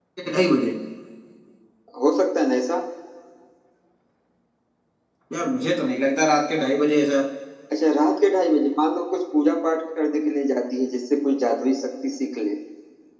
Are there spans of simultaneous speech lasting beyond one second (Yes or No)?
No